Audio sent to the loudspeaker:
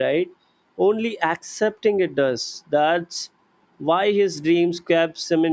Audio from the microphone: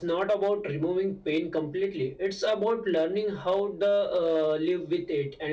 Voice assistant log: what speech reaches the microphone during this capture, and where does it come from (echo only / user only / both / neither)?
user only